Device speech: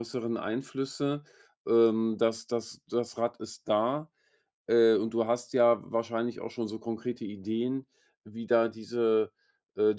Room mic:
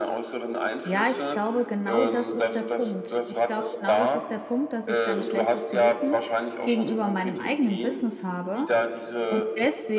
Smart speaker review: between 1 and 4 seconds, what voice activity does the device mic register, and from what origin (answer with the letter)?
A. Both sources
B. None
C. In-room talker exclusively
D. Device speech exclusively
A